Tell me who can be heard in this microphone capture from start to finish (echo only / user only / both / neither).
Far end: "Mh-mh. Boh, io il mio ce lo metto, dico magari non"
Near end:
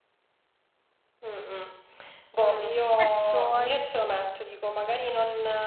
both